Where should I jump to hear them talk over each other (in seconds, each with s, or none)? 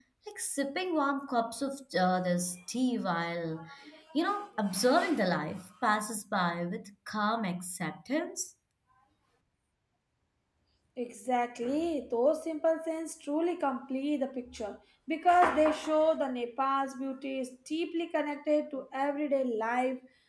none